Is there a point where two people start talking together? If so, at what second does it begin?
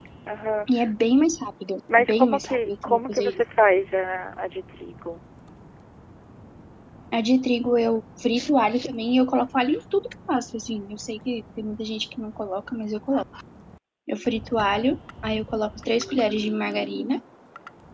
1.9 s

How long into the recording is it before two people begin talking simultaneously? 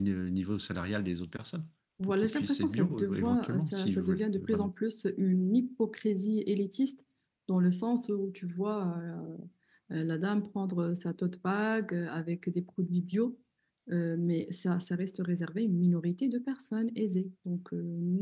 2.0 s

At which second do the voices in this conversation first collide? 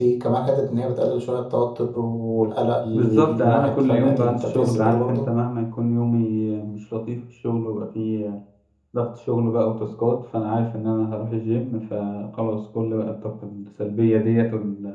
2.9 s

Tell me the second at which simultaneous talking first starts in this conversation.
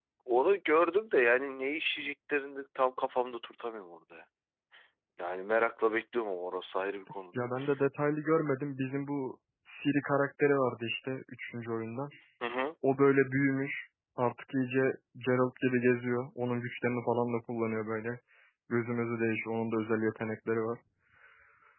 none

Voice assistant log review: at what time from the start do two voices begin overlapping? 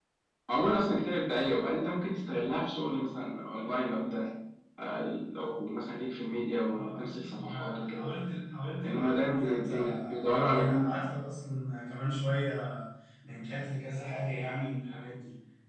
6.7 s

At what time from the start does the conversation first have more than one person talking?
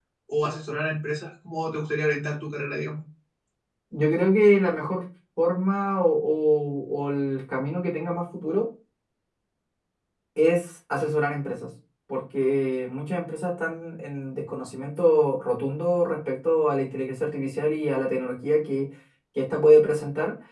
none

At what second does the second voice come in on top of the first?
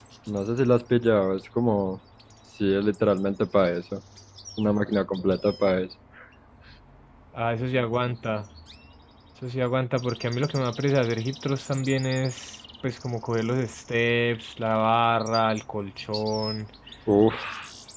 none

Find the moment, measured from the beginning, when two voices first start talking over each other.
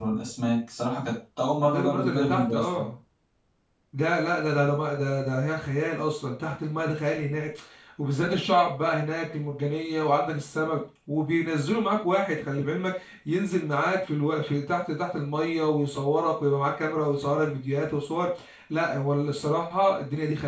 1.6 s

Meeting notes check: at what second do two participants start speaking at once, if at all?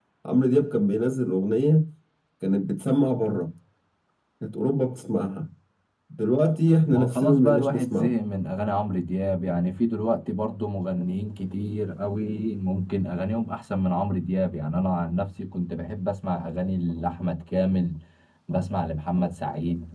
6.9 s

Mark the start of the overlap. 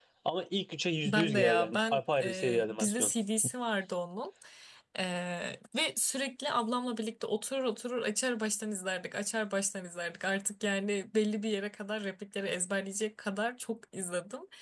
1.1 s

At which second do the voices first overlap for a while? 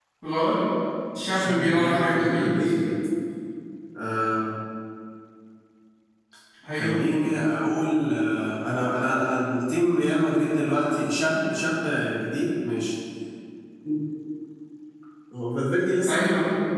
1.3 s

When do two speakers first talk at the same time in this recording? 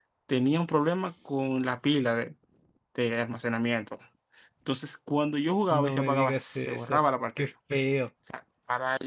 5.7 s

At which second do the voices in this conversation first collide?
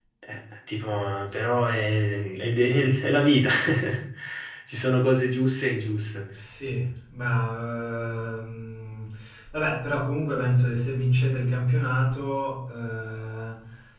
none

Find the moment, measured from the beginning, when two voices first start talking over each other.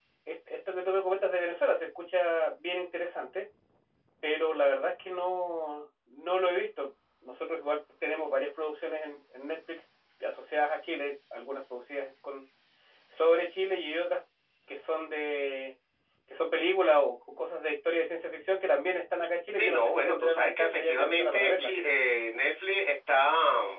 19.5 s

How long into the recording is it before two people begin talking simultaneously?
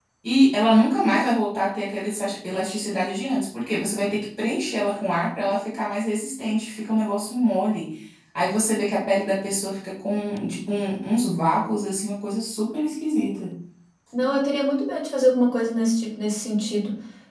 none

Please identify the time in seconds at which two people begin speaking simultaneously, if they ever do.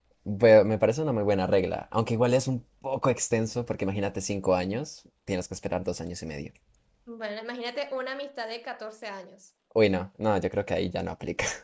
none

